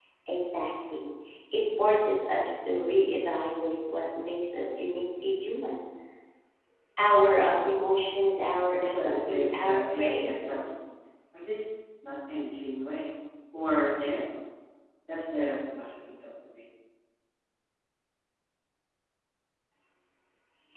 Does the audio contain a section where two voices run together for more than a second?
Yes, from 8.8 s

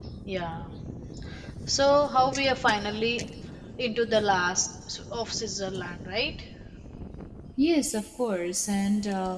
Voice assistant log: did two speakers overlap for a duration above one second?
No

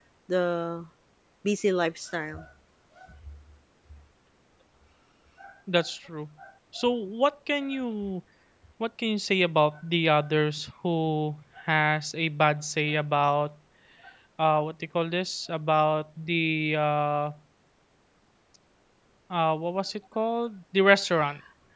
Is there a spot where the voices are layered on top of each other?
No

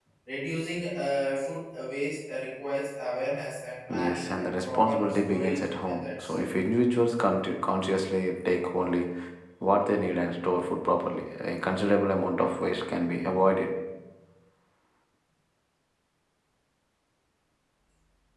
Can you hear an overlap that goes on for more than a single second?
Yes, from 3.9 s

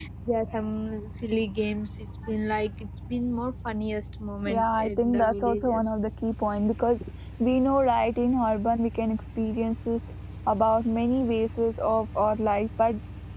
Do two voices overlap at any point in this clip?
Yes, from 4.4 s

